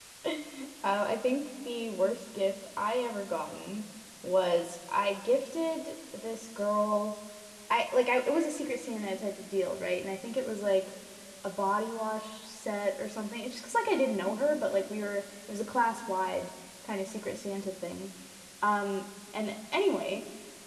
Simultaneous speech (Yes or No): No